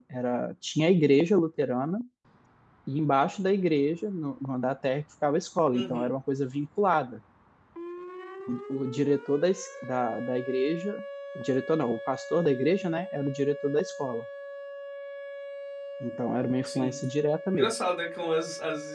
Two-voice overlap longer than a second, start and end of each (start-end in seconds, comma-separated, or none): none